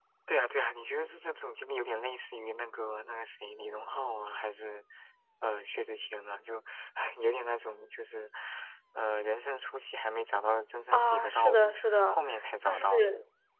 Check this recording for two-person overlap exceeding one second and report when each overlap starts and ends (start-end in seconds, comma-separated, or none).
10.9-12.2